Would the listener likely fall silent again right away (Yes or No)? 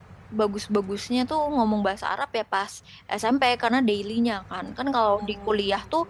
Yes